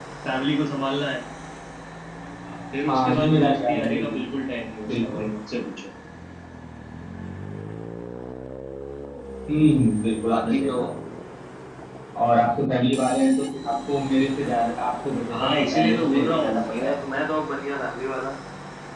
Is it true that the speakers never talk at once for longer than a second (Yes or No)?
No